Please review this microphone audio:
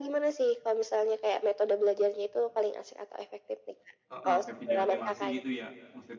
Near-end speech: present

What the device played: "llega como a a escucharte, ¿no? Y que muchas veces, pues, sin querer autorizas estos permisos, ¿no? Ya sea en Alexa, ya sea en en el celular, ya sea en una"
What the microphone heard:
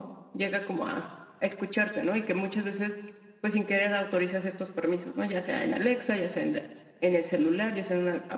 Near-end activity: none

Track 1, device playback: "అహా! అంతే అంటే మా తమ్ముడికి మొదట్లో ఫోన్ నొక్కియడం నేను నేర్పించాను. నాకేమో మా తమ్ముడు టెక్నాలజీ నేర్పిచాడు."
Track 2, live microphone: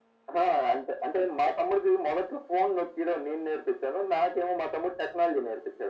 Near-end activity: none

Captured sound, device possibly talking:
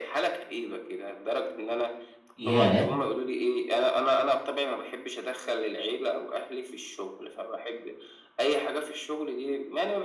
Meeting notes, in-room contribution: present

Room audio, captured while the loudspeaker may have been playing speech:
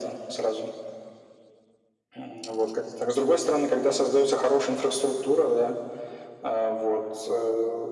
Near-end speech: none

